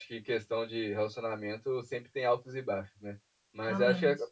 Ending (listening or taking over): listening